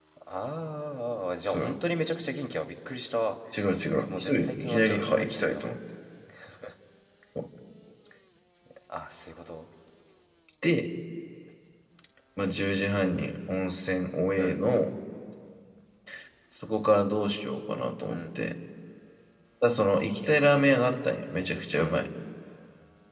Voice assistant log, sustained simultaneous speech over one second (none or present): present